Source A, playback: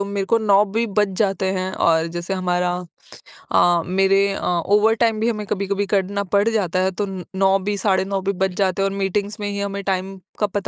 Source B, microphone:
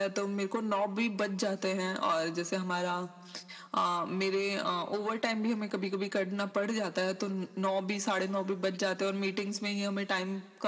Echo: present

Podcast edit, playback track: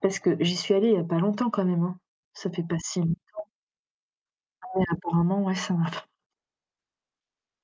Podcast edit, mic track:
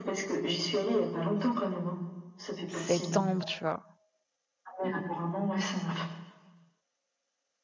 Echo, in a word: present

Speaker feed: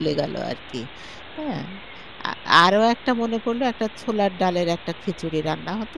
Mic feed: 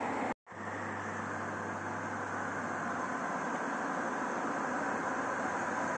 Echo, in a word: none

